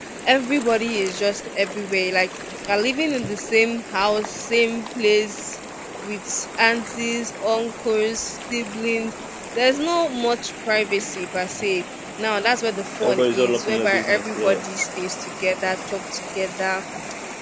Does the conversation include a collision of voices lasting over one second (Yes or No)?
Yes